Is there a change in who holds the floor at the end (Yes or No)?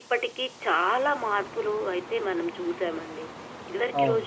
No